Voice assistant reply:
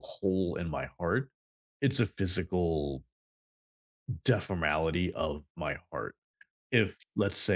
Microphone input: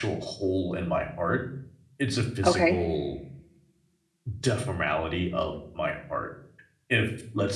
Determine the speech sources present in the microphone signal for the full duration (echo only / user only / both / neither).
both